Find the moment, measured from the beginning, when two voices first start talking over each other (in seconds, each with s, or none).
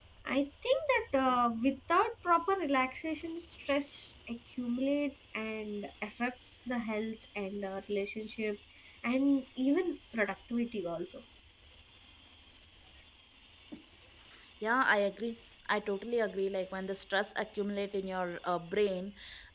none